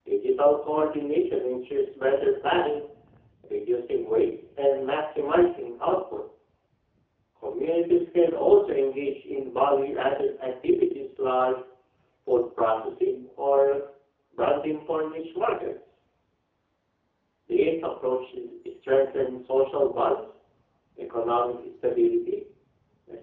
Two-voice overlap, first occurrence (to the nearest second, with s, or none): none